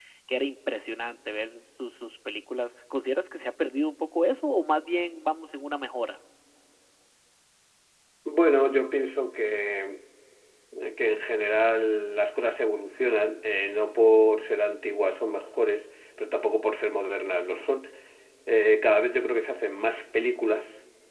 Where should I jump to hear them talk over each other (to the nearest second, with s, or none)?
none